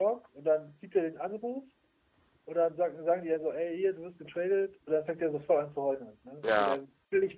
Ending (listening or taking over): listening